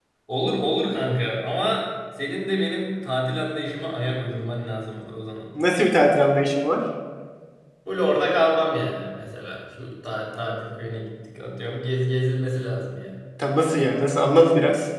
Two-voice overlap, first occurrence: none

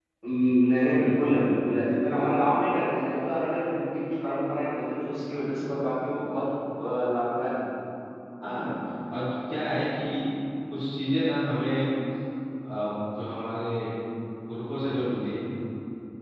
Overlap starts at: none

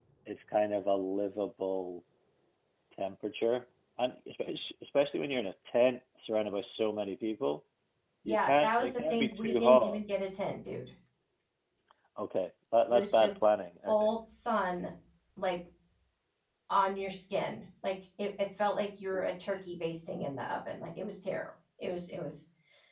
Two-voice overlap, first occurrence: 8.2 s

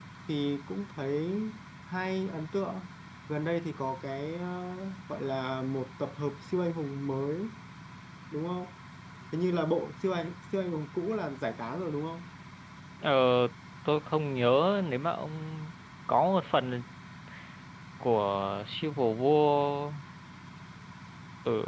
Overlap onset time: none

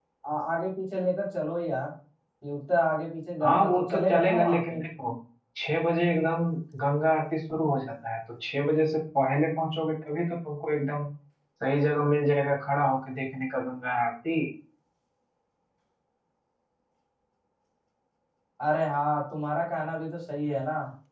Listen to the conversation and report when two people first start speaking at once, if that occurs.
3.4 s

